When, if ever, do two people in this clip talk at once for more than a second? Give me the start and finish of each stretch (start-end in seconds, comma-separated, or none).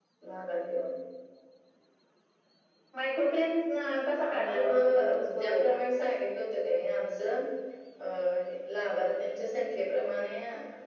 4.3-5.8